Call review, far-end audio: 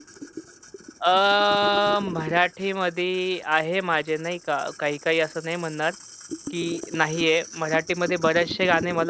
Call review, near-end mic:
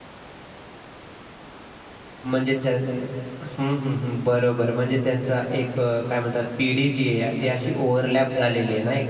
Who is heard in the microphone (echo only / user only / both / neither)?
user only